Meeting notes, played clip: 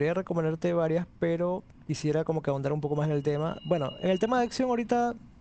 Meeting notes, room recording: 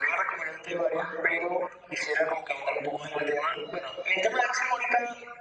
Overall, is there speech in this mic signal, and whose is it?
echo only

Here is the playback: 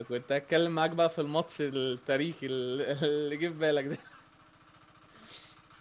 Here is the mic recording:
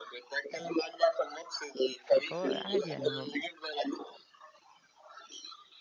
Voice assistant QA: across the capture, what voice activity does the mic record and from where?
both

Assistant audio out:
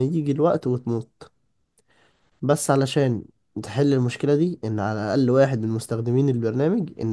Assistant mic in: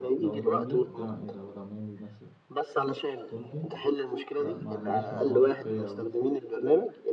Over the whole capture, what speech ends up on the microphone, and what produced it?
both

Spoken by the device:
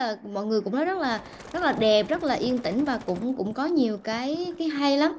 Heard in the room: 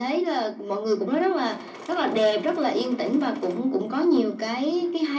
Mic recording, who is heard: echo only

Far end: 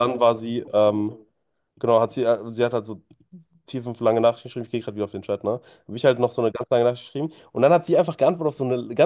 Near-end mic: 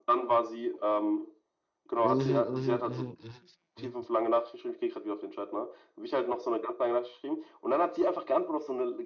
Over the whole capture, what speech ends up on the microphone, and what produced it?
both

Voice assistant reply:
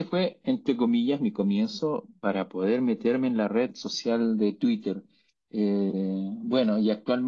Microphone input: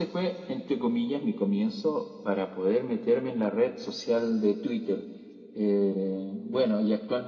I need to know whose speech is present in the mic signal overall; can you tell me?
echo only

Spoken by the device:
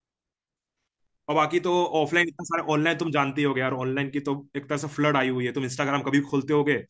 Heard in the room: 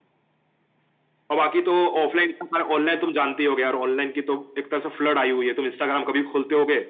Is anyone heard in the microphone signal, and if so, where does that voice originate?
echo only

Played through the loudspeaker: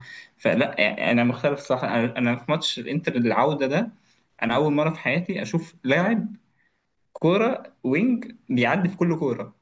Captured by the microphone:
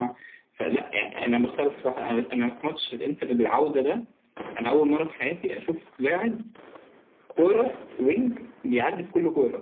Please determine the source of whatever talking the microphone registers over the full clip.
echo only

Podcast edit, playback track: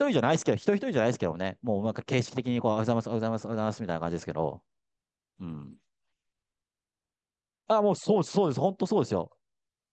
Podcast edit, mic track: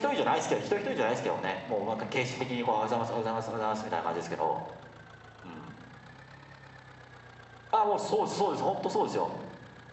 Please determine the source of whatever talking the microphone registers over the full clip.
echo only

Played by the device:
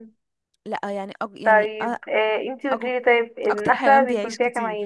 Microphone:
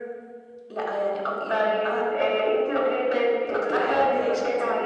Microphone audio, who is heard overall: echo only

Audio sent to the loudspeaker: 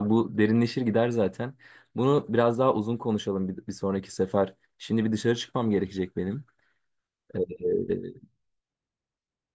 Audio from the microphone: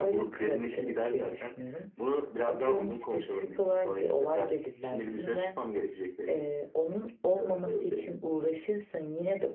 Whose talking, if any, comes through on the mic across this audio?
both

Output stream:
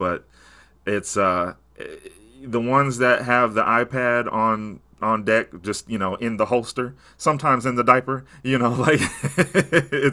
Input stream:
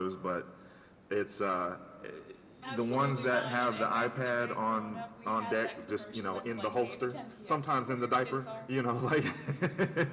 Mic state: both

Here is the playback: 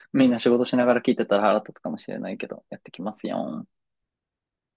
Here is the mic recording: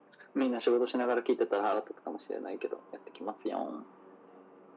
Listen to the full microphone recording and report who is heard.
echo only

